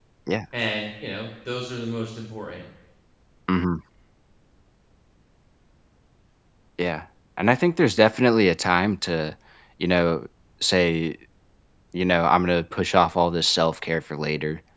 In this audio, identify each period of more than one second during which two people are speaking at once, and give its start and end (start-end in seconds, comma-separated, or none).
none